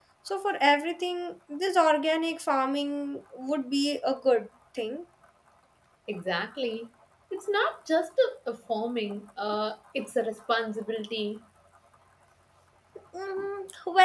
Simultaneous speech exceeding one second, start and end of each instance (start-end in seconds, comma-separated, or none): none